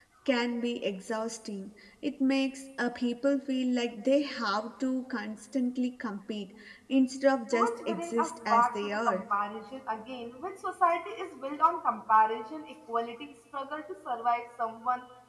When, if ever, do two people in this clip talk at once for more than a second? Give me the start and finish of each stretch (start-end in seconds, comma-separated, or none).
7.5-9.2